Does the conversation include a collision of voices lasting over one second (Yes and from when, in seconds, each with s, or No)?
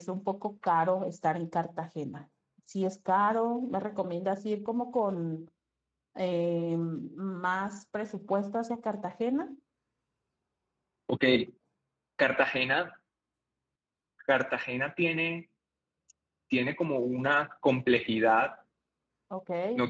No